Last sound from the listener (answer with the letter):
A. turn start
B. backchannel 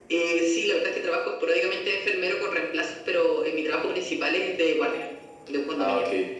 A